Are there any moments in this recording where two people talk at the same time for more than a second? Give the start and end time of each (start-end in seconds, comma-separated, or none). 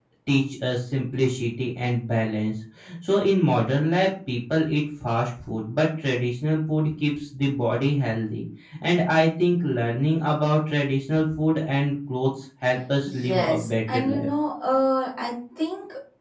13.0-14.3